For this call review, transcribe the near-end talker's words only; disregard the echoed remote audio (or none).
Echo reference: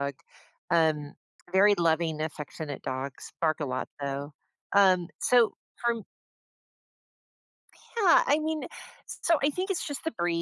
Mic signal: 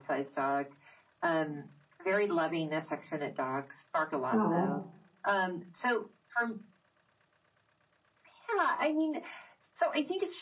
Oh.